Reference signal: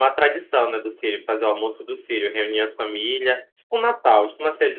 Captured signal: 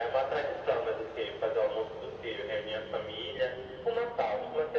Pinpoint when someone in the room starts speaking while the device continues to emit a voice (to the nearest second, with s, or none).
none